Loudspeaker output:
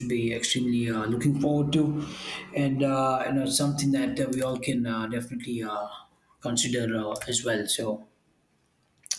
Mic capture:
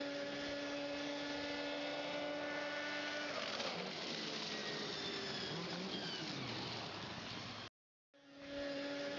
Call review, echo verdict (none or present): none